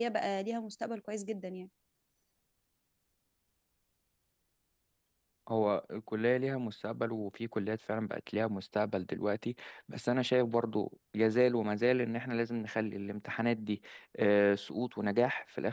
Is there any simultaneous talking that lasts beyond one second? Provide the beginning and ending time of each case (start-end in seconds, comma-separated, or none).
none